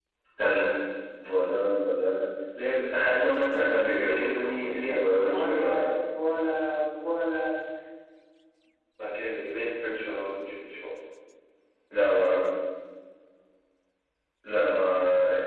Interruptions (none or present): present